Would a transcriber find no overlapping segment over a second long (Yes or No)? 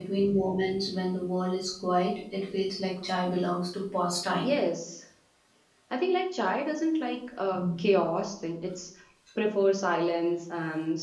Yes